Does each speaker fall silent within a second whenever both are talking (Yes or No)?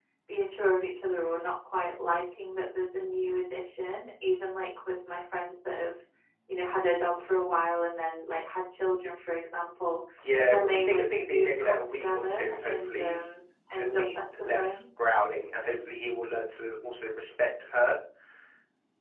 No